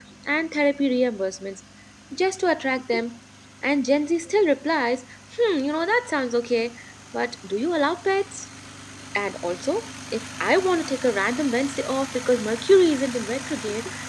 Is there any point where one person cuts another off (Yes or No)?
No